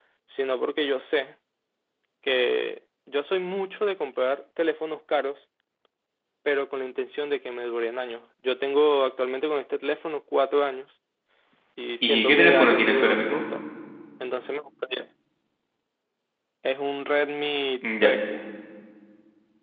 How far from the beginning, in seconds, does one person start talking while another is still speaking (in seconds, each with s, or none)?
12.0 s